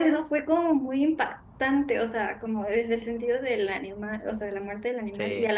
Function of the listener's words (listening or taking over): listening